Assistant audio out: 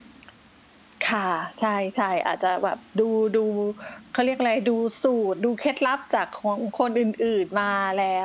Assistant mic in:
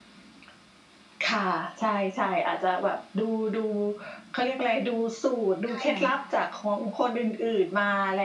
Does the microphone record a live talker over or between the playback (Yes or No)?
Yes